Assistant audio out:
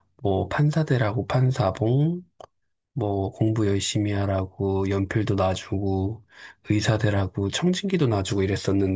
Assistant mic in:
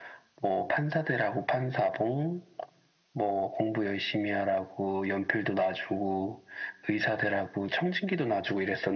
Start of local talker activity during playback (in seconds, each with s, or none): none